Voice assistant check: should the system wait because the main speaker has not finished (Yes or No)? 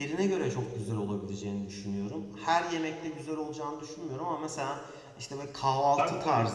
Yes